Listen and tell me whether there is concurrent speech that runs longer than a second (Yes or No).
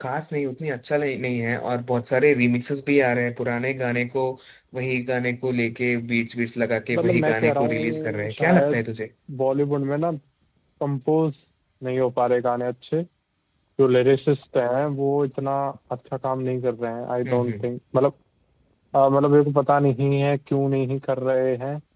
Yes